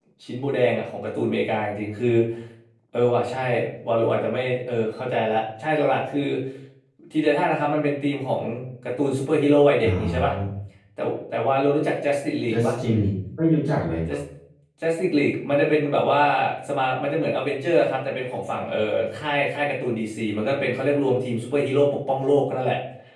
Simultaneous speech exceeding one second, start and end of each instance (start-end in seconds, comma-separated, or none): none